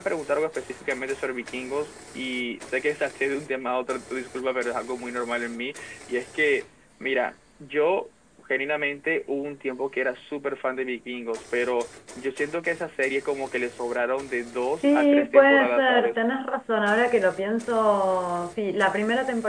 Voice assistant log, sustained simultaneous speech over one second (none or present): present